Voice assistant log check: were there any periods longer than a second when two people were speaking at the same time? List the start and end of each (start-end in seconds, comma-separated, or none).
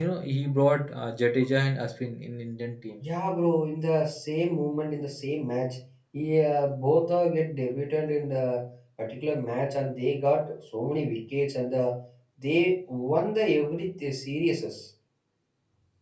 none